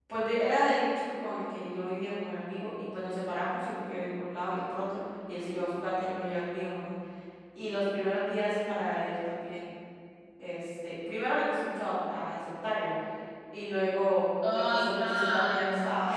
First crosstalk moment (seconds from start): 14.4 s

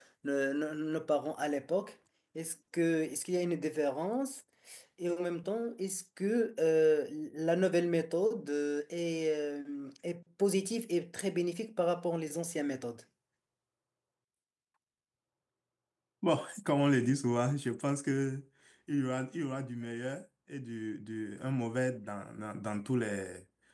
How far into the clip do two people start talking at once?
none

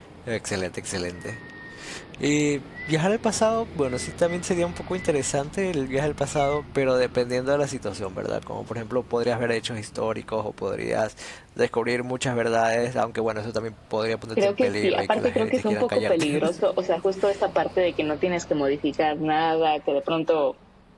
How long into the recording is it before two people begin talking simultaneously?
14.4 s

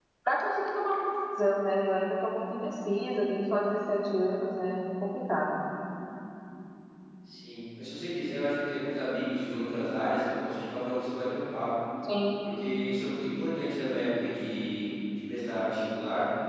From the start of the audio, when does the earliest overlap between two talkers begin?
none

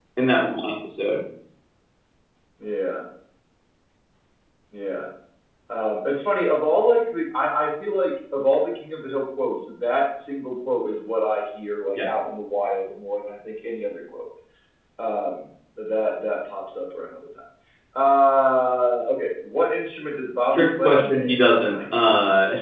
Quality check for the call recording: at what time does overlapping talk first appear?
20.5 s

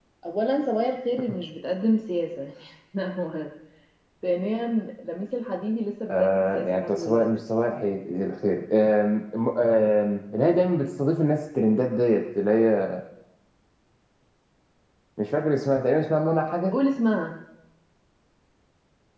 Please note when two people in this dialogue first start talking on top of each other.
6.1 s

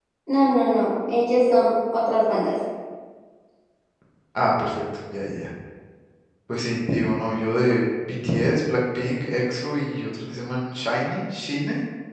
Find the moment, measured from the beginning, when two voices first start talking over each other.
none

